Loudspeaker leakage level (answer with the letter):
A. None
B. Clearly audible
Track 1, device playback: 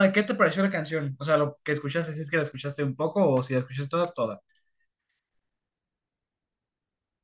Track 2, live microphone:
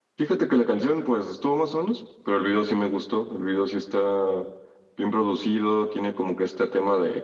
A